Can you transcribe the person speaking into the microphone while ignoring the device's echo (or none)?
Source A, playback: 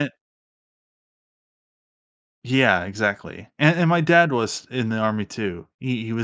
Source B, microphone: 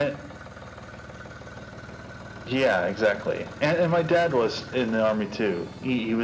none